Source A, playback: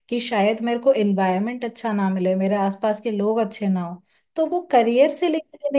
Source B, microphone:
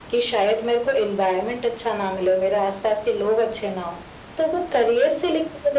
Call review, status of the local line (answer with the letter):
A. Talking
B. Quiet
B